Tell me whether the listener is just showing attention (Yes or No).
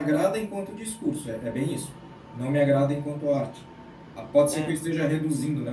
Yes